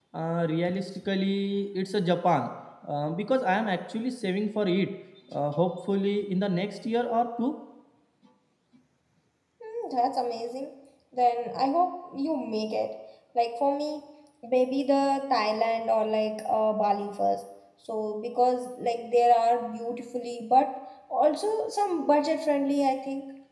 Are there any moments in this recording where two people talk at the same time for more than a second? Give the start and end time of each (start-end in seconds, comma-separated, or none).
none